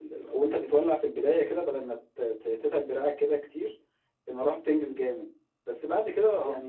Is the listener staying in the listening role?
Yes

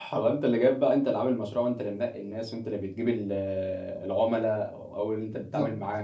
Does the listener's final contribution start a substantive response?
No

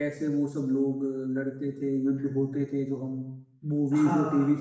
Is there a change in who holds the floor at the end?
Yes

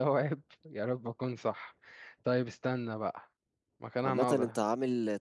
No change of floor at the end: No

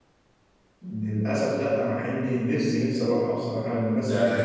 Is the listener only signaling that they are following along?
No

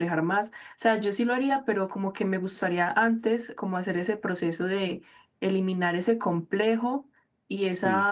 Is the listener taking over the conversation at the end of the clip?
No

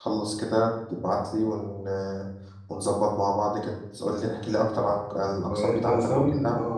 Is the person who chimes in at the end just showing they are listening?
No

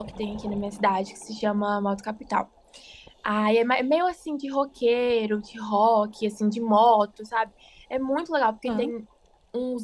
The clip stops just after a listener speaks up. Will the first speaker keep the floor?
Yes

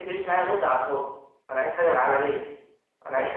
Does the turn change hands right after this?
Yes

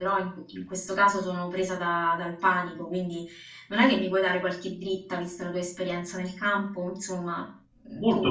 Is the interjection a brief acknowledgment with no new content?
Yes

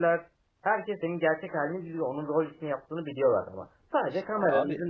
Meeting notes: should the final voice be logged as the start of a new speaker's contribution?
No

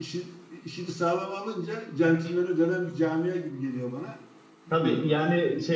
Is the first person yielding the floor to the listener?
Yes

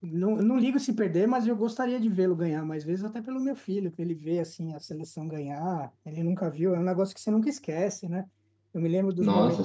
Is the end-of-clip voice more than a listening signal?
No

